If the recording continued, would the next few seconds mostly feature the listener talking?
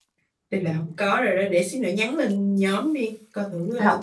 Yes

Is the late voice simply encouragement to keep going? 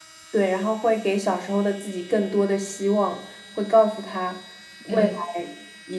Yes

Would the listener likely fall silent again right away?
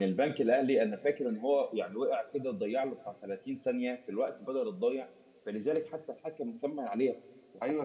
Yes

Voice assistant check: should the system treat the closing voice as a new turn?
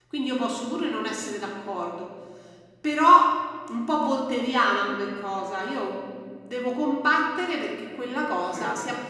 No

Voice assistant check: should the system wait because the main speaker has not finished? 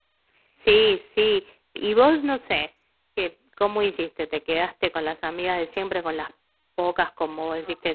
Yes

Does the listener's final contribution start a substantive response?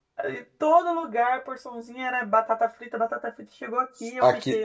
Yes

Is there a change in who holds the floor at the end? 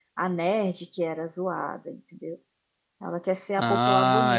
Yes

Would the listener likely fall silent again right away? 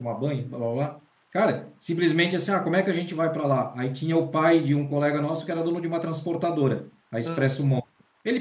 Yes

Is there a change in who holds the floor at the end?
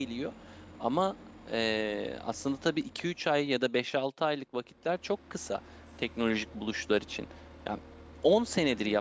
No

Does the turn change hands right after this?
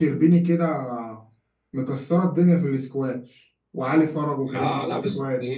Yes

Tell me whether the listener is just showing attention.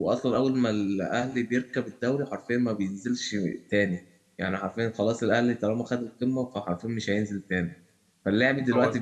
Yes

